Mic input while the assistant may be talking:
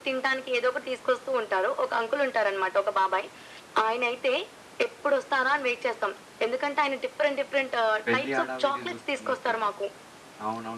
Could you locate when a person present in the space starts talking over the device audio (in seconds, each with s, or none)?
8.1 s